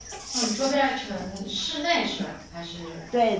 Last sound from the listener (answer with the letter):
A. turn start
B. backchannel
A